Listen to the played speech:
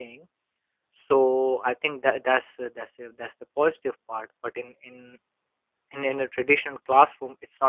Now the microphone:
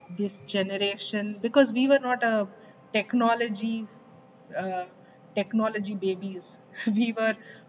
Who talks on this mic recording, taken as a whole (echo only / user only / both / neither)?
user only